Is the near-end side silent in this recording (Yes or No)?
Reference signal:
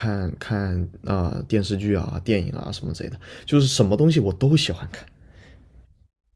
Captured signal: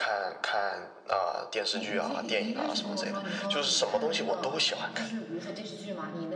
No